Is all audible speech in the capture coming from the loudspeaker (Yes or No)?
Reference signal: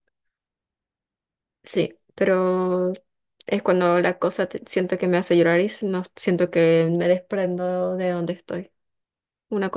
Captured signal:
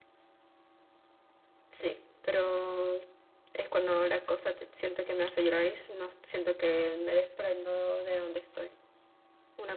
Yes